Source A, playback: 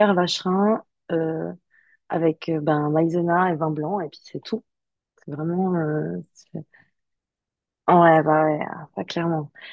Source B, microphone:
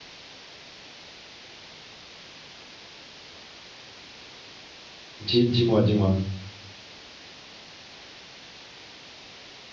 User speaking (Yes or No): Yes